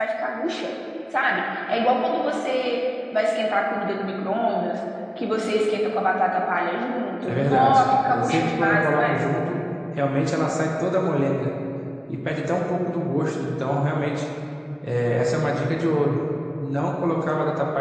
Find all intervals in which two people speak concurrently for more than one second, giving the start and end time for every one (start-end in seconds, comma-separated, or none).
7.2-9.2